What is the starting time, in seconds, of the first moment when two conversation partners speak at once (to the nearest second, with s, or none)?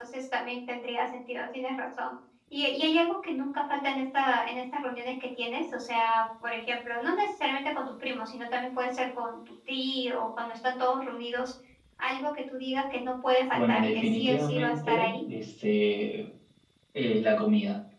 14 s